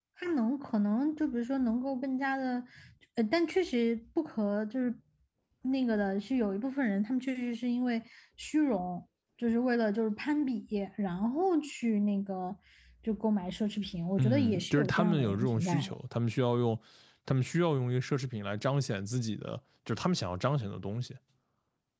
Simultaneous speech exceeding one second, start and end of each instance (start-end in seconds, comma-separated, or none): 14.2-15.9